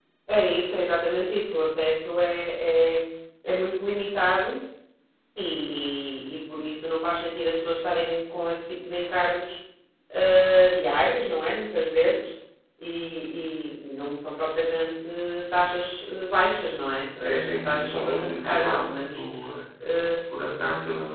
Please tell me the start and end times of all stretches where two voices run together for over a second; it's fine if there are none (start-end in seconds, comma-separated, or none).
17.2-19.2